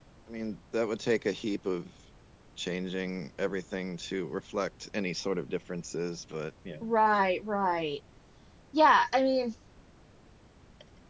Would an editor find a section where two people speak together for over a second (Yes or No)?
No